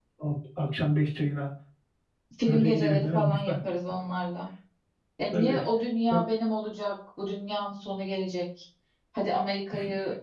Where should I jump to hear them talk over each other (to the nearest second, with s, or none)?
2 s